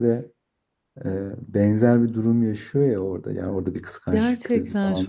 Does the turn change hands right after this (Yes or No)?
Yes